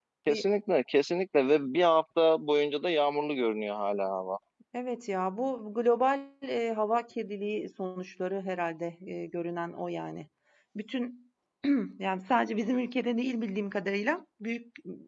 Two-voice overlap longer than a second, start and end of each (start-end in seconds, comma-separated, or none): none